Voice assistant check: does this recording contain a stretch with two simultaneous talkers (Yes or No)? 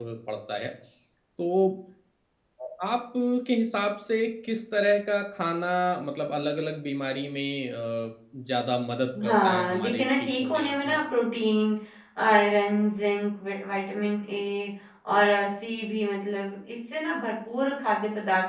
Yes